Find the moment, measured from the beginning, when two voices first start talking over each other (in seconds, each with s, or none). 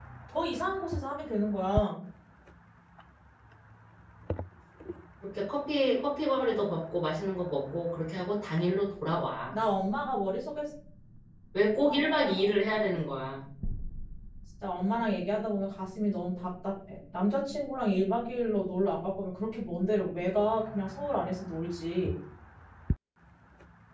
none